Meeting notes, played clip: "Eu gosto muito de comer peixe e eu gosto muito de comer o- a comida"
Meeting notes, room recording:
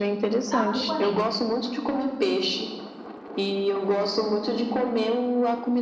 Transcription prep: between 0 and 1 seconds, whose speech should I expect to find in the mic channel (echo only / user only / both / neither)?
both